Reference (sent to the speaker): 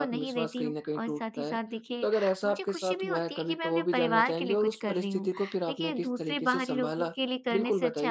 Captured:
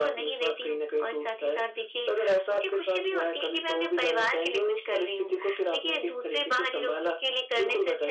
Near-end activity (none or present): none